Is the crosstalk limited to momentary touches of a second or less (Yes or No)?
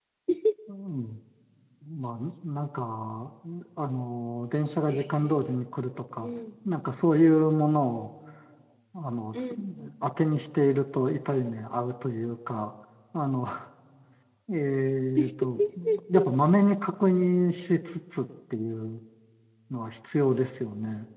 Yes